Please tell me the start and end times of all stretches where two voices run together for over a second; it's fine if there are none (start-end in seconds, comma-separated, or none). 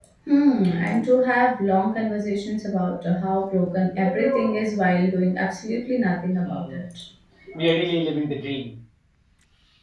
none